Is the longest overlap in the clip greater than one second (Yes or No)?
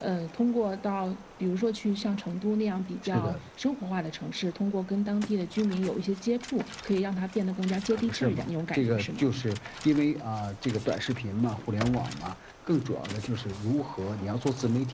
Yes